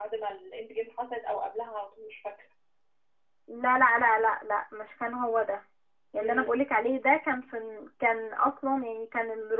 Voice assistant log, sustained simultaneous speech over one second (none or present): none